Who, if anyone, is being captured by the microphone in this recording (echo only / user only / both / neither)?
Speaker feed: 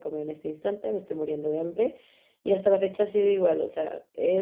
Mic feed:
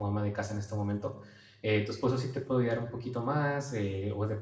user only